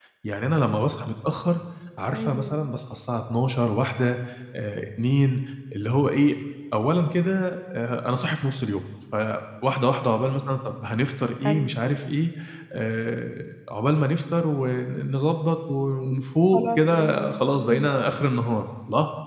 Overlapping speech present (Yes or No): Yes